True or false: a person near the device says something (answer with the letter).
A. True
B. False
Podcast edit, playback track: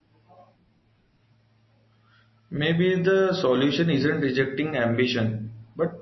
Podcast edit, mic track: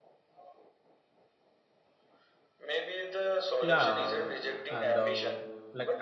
A